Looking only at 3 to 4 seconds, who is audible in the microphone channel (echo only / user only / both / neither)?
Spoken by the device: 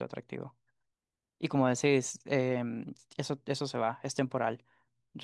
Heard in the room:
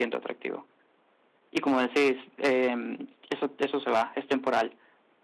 echo only